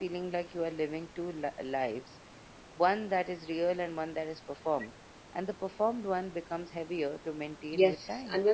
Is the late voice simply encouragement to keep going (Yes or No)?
No